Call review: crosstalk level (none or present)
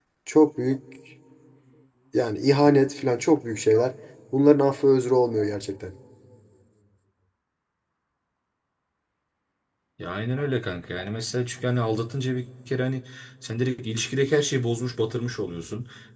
none